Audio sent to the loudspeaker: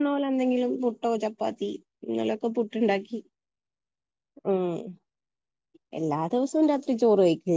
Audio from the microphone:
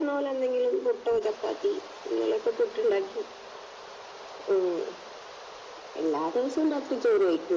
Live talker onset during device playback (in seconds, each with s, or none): none